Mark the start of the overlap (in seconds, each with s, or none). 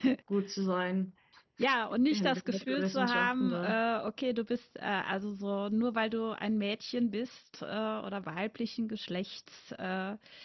2.1 s